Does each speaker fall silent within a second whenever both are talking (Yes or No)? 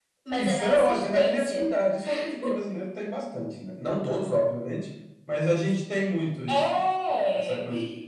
No